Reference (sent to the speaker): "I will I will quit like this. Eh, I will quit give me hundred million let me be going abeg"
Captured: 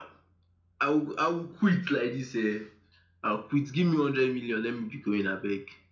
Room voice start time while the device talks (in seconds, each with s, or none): none